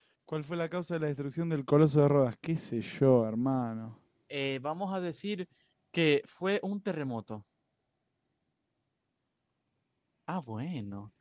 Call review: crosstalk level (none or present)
none